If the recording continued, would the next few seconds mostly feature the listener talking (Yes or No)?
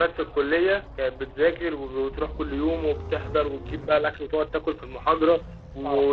No